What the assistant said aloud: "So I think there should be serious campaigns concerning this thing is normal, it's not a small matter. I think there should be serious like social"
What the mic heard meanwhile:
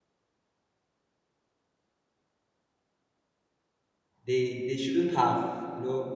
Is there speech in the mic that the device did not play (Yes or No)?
Yes